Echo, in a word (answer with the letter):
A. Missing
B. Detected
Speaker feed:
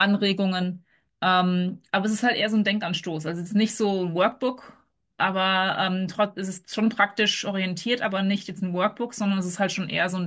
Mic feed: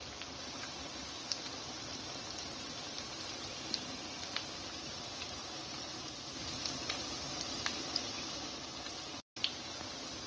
A